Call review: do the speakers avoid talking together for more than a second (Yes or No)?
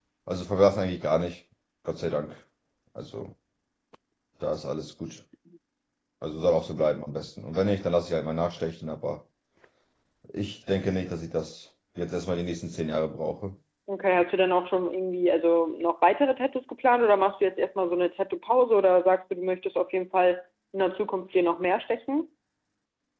Yes